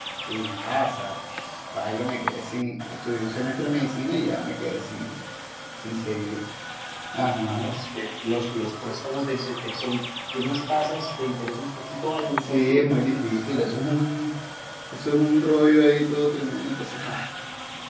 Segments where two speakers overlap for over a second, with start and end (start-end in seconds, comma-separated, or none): 12.5-13.8